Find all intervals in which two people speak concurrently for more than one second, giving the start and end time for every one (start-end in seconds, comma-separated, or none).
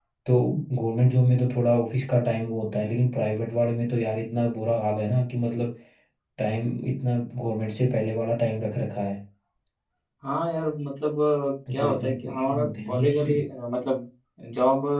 11.8-13.3